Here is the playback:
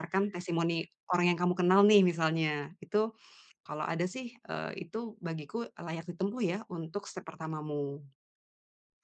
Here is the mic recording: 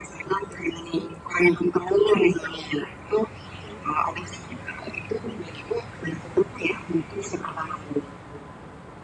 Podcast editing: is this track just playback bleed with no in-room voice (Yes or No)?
Yes